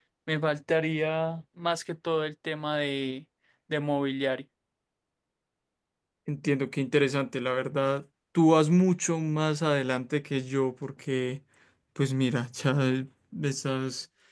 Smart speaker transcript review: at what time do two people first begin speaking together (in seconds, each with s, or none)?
none